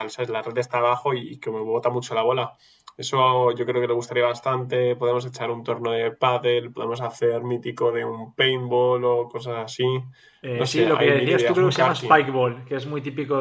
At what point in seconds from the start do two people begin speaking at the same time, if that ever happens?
10.6 s

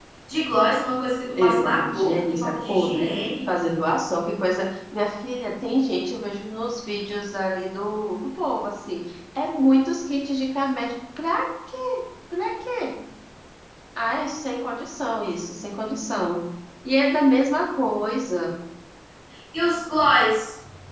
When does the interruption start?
1.4 s

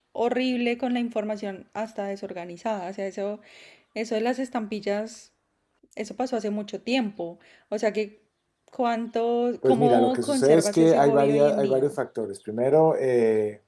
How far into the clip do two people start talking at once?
9.6 s

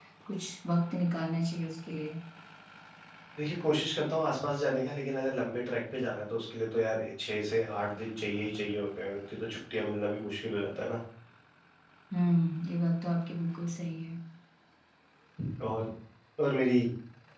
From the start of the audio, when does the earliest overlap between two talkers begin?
none

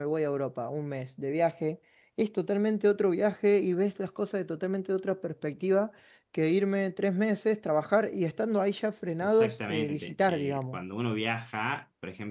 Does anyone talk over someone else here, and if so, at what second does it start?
9.2 s

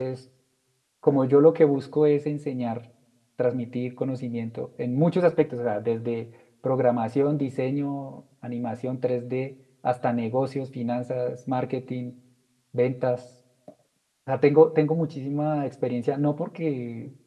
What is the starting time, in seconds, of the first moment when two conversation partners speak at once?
none

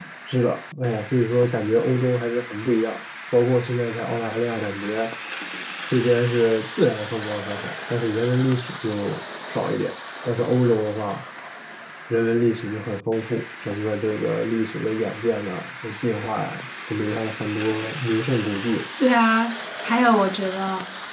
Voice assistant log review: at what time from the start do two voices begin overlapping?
none

